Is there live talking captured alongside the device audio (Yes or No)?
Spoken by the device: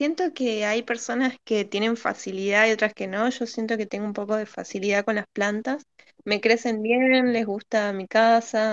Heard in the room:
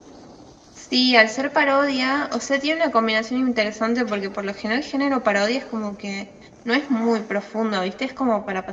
Yes